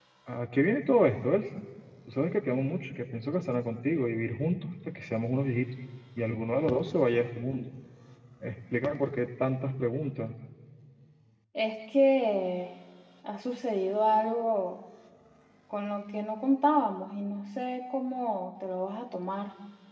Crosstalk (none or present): none